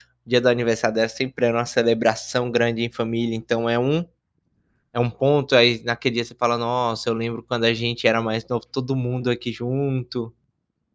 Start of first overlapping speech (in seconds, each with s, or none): none